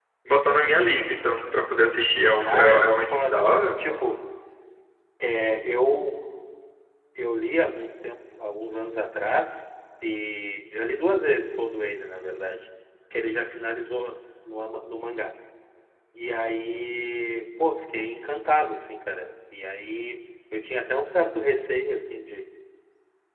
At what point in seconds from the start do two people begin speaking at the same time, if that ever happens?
2.4 s

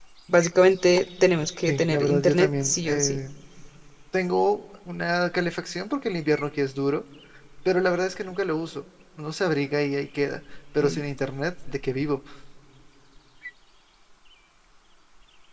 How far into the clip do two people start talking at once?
1.7 s

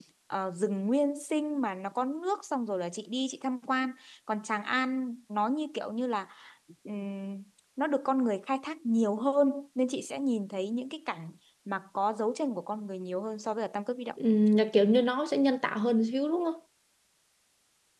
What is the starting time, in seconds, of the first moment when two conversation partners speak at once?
none

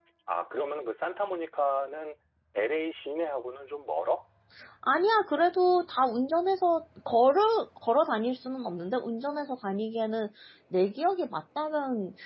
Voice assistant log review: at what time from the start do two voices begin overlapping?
none

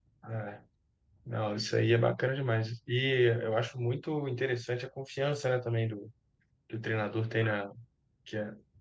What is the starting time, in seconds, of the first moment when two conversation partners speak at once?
none

